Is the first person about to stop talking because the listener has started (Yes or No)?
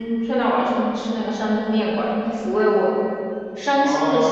Yes